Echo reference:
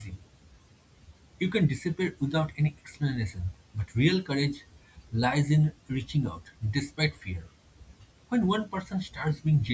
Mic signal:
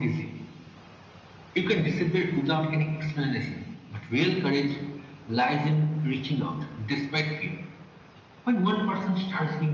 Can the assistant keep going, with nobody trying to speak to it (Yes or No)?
Yes